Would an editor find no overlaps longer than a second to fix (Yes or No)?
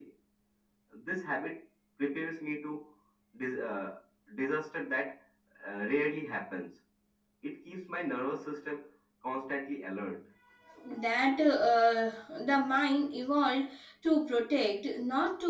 Yes